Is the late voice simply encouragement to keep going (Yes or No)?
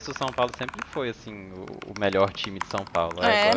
No